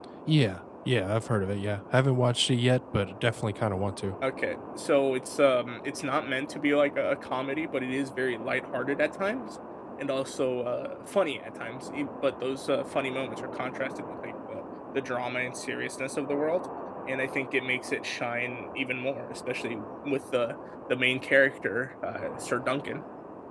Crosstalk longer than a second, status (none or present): none